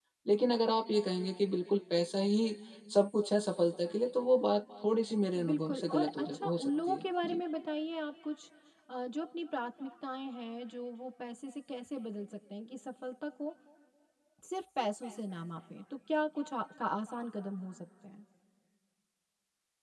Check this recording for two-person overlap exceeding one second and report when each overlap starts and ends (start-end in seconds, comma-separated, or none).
5.4-7.4